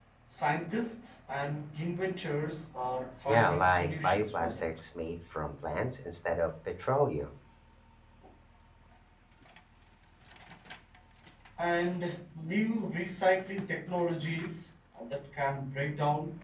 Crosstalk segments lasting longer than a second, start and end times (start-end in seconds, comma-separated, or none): 3.3-4.7